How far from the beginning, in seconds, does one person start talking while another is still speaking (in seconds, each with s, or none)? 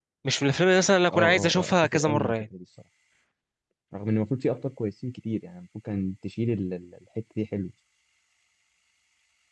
1.1 s